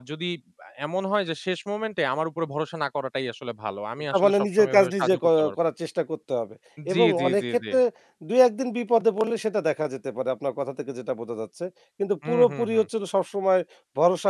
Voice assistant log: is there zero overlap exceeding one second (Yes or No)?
No